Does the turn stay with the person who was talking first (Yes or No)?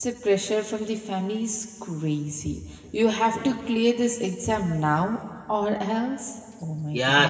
No